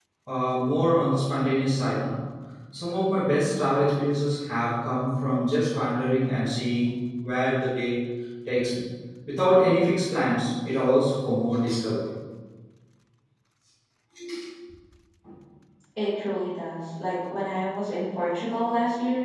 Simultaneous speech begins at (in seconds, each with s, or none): none